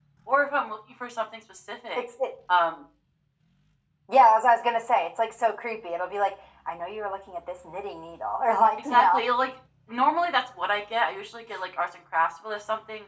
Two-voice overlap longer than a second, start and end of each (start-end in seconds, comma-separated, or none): none